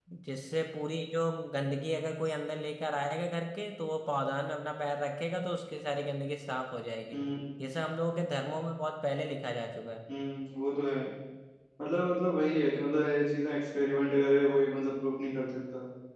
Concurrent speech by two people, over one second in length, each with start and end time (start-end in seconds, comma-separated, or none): none